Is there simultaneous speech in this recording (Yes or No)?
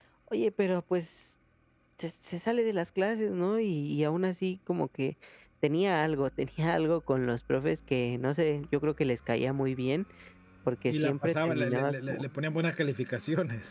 Yes